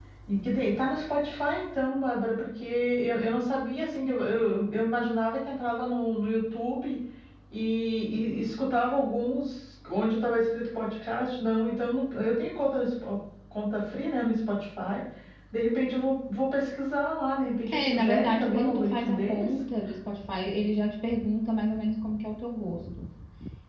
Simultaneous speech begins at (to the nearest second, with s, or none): 17 s